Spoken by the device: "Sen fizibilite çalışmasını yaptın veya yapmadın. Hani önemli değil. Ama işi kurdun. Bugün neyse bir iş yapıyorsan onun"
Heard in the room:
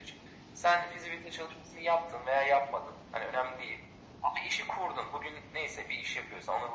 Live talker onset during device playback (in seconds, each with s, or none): none